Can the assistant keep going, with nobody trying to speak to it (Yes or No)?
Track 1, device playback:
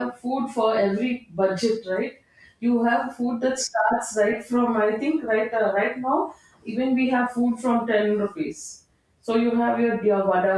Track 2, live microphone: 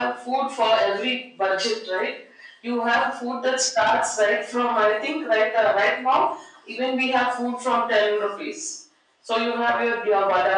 Yes